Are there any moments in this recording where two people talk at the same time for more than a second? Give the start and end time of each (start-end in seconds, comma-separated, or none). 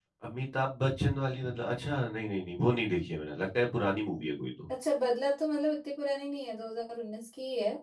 none